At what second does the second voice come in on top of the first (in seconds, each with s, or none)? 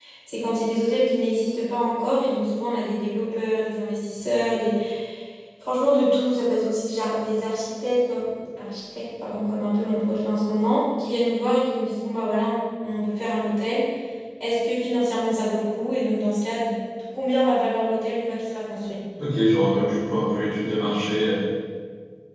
none